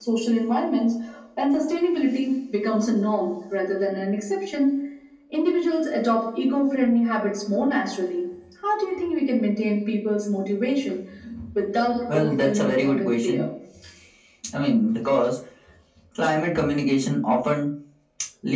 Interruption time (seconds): 12 s

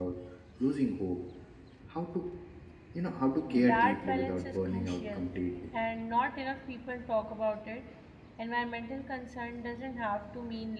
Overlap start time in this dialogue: 3 s

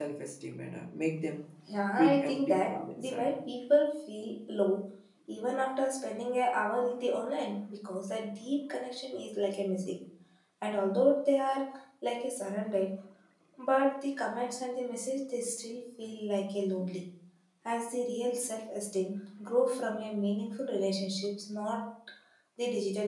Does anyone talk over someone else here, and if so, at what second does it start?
2 s

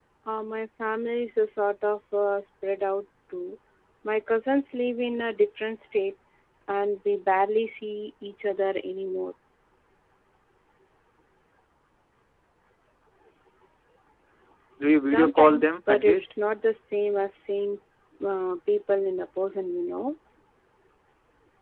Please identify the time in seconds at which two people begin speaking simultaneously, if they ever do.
15 s

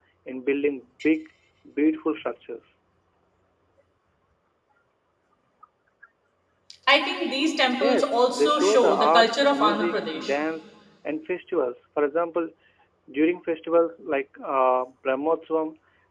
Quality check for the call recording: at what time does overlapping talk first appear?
8 s

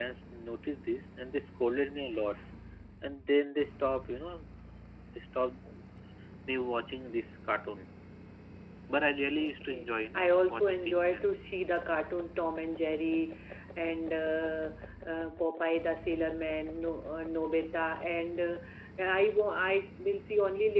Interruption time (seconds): 9 s

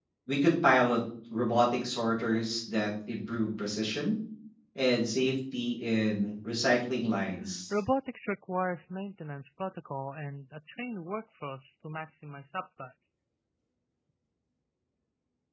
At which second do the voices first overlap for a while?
none

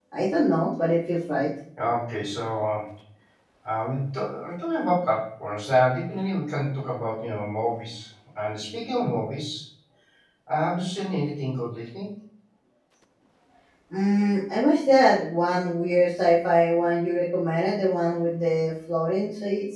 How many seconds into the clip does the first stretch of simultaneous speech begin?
none

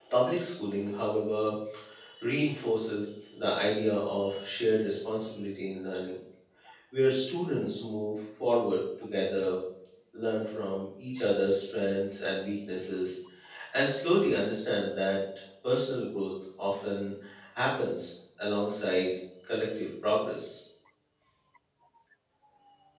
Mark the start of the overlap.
none

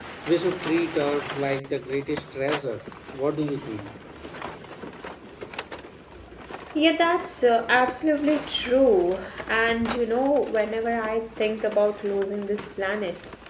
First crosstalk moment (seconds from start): none

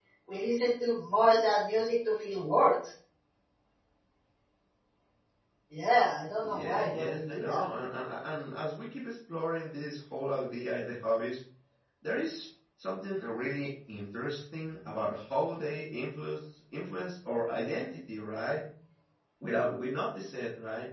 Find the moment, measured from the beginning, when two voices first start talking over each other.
6 s

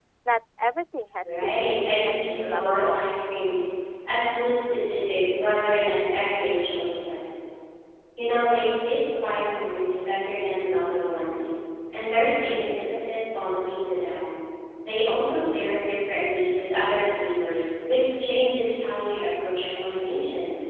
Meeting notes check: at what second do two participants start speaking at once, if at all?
1 s

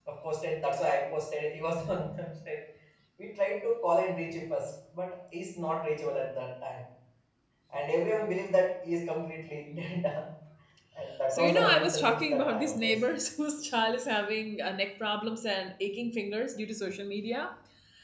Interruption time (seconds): 11 s

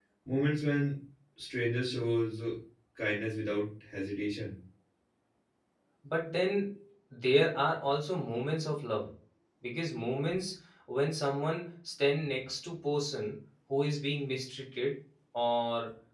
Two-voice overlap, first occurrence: none

